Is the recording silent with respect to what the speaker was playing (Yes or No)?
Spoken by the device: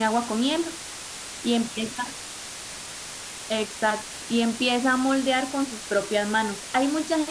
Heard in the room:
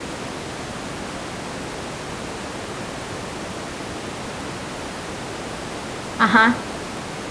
Yes